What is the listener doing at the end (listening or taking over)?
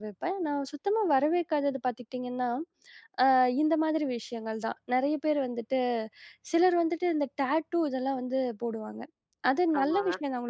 listening